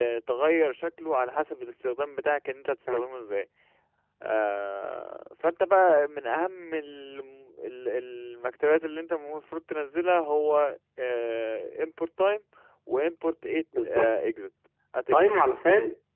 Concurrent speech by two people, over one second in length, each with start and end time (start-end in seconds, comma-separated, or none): none